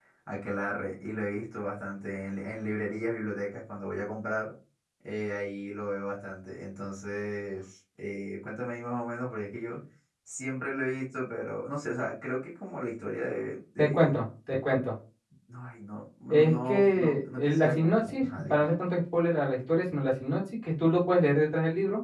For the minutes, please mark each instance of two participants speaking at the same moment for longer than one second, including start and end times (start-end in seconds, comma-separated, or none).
16.3-18.7